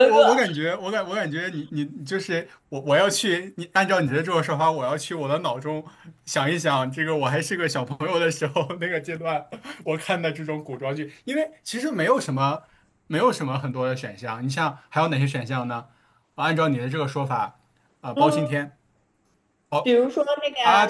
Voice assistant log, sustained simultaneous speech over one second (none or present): none